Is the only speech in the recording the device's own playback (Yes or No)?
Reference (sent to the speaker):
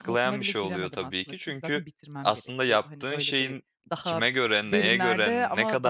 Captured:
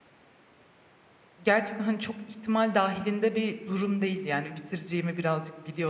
No